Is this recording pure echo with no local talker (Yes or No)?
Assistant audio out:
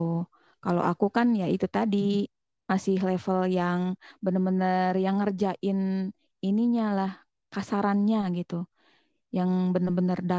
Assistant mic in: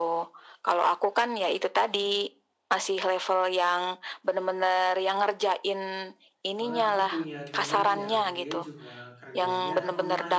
No